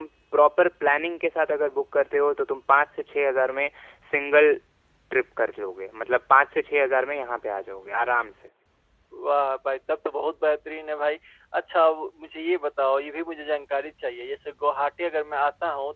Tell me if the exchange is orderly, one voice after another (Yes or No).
Yes